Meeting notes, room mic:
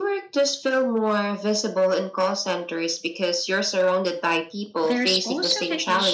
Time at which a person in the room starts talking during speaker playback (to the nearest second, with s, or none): 5 s